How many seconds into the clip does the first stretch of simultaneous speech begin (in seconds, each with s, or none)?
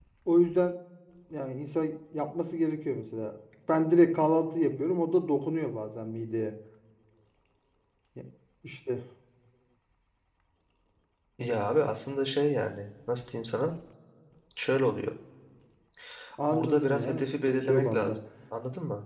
16.5 s